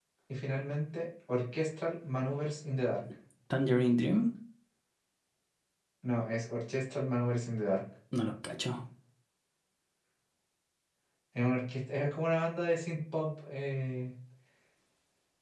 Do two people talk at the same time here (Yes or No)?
No